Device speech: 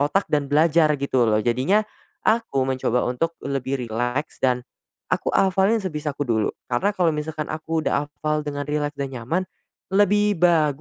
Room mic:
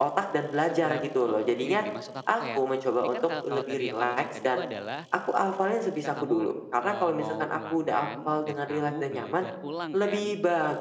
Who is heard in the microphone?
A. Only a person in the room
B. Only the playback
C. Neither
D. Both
D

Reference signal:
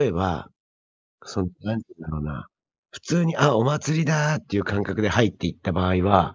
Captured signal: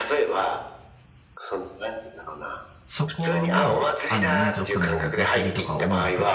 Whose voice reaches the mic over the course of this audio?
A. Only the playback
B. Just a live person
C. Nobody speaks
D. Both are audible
D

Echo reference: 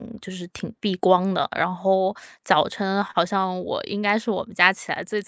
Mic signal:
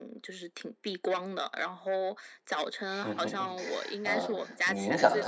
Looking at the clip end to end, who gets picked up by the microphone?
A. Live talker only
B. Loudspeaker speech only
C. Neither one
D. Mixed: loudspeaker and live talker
D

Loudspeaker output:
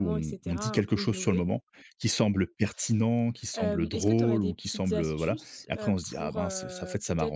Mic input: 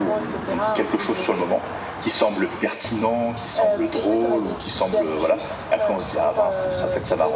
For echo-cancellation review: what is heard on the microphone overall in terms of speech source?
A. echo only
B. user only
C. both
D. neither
A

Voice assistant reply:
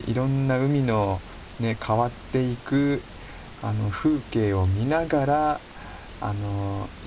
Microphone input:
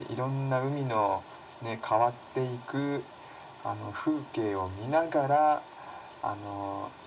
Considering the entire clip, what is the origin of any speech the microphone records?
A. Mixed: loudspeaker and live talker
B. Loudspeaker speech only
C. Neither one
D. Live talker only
B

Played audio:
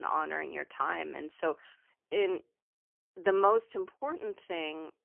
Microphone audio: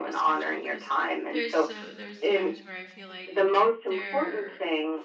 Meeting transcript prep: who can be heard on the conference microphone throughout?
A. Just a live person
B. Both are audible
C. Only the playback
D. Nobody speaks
B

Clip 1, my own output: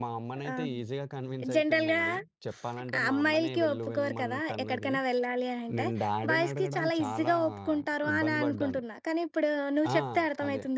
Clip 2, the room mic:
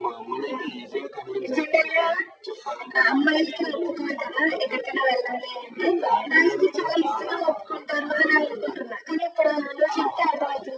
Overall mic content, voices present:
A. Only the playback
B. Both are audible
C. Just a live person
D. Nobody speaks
A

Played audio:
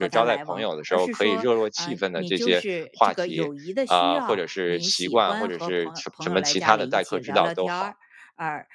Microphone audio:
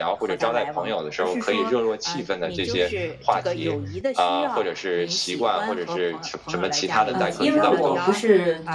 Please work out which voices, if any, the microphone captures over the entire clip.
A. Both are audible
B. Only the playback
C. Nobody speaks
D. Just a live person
A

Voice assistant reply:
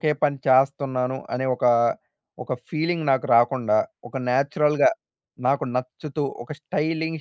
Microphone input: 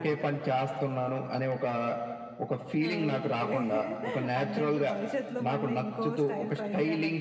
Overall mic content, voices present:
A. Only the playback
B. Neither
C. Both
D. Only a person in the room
C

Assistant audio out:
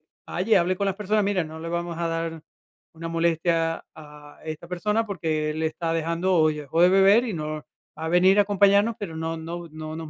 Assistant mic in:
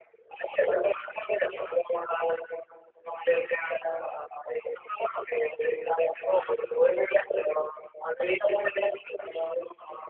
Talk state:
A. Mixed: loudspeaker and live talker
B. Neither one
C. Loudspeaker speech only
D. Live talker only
C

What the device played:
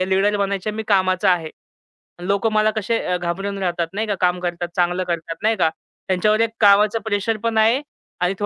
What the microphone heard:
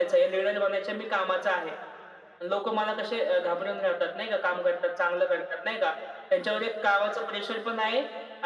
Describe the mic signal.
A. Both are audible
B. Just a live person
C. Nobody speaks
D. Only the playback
D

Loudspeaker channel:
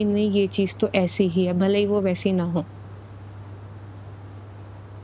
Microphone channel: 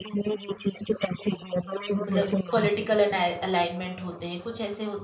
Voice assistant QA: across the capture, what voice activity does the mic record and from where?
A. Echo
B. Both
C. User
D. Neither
B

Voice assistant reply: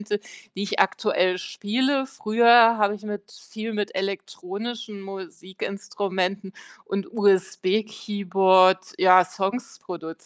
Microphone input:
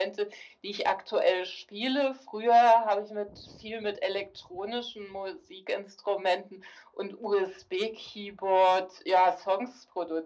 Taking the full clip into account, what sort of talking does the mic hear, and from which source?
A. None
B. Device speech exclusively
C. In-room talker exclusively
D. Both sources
B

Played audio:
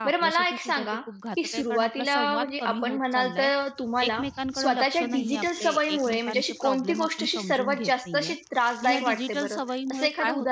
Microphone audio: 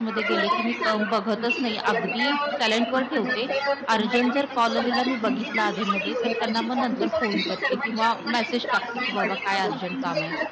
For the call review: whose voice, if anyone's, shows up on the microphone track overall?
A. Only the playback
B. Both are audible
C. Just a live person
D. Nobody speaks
B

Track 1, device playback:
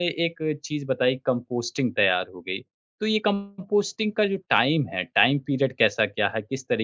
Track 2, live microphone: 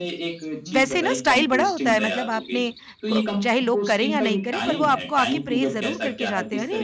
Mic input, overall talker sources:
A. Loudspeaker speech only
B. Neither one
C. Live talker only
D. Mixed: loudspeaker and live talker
D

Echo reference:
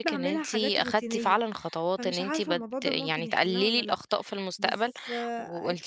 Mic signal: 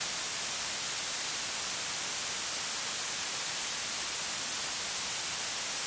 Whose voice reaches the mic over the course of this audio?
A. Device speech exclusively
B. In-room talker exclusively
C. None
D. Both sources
C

